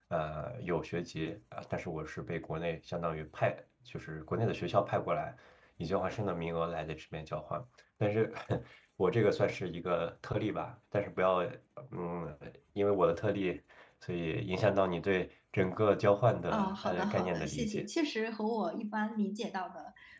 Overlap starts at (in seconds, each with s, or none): 16.5 s